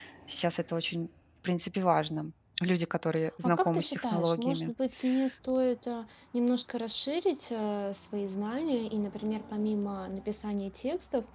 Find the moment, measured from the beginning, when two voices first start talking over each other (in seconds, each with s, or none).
3.4 s